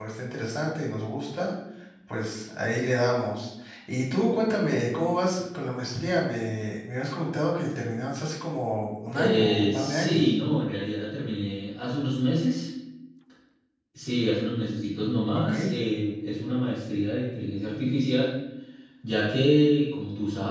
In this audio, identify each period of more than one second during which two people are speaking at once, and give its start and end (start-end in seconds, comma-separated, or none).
9.0-10.3